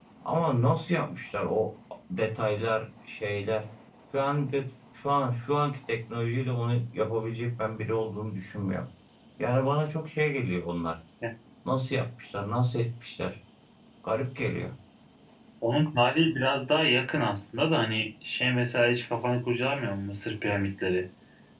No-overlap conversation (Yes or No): Yes